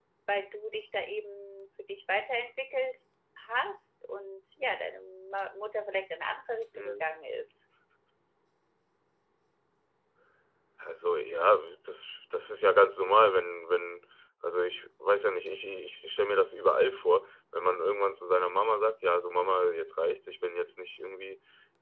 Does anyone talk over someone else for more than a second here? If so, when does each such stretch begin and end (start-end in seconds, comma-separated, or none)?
none